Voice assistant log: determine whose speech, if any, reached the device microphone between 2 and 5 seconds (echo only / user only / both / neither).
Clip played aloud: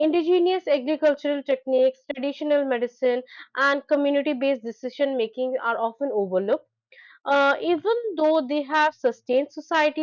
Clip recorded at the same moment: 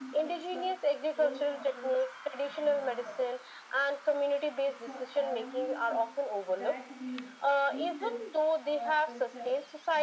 both